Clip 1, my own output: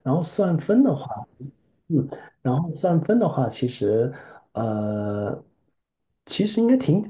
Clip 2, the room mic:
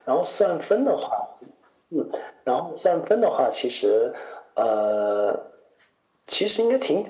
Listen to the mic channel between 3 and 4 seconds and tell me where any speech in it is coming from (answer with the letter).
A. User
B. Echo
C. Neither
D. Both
B